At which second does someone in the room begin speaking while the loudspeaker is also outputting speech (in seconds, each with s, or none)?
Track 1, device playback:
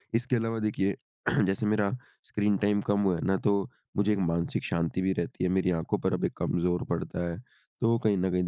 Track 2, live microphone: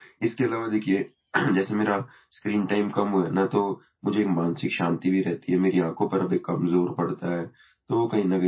none